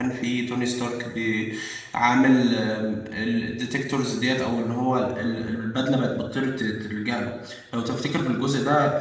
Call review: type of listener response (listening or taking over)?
listening